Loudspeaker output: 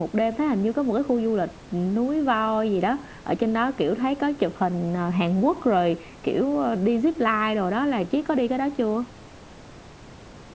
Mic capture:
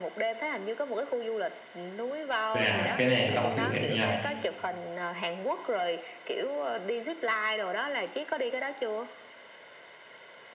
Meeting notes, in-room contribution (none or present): present